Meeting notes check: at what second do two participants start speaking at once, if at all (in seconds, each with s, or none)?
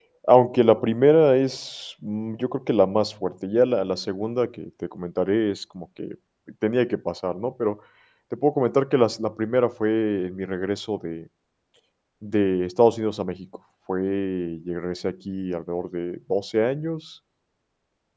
none